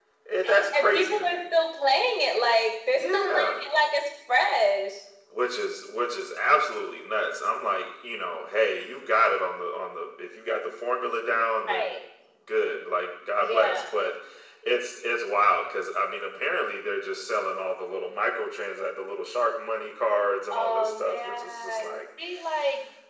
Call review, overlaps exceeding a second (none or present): present